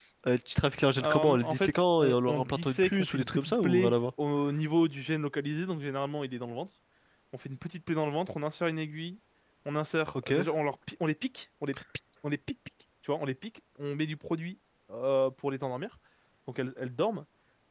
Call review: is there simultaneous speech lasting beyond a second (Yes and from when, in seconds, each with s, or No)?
Yes, from 1.0 s